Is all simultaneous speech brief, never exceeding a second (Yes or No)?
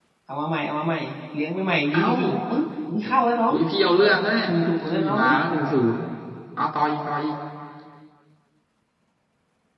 Yes